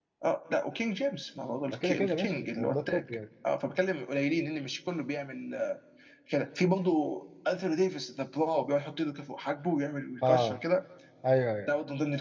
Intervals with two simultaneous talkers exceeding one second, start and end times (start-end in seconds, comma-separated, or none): 1.7-3.0